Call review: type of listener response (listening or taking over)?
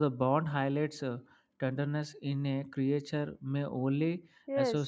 taking over